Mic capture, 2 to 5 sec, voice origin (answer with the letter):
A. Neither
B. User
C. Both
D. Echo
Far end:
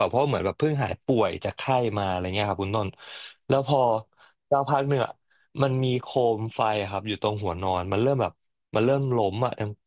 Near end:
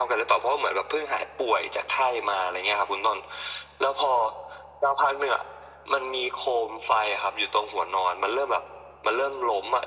D